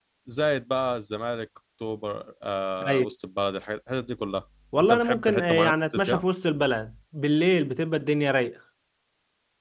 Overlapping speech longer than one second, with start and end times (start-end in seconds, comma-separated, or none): 4.8-6.3